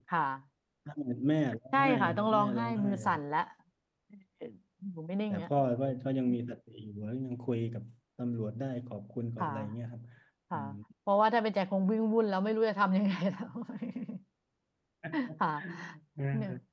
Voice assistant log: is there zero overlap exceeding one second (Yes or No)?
No